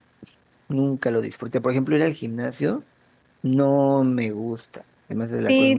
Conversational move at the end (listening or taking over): taking over